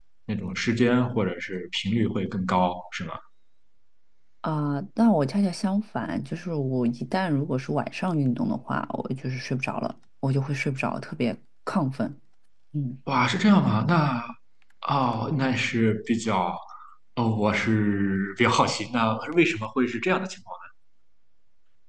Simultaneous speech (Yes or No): No